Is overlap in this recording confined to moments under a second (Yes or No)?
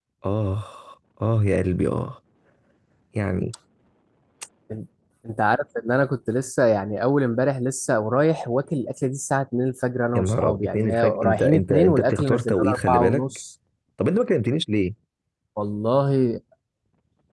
No